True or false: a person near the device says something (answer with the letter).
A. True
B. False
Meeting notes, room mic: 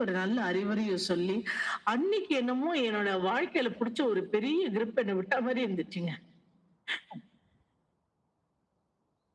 B